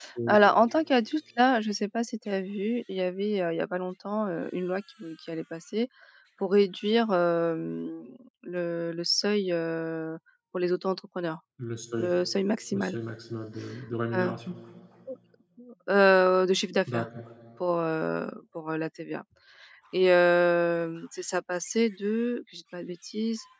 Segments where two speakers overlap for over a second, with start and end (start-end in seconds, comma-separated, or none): none